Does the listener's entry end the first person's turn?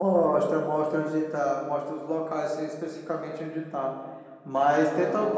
No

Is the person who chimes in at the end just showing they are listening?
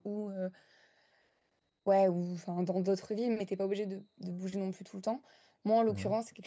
Yes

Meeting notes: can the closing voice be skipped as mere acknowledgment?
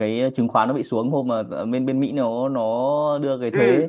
Yes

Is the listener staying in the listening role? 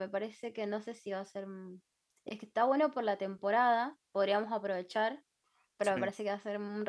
Yes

